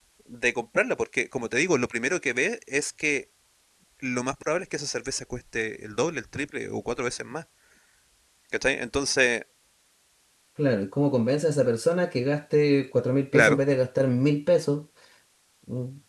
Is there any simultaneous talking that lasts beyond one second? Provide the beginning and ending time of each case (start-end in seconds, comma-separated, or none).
none